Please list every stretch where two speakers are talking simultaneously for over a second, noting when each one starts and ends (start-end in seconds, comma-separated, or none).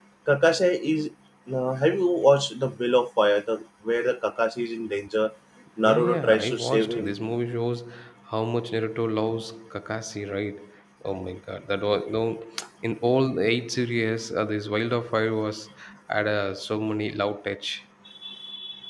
5.8-7.1